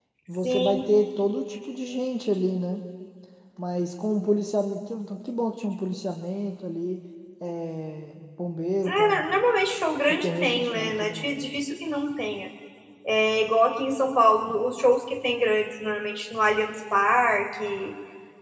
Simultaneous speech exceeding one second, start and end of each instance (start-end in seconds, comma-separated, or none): 10.1-11.4